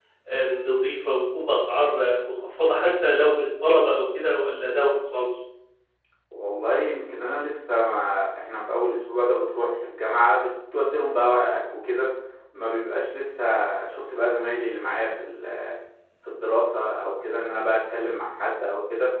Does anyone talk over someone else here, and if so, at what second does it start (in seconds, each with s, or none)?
none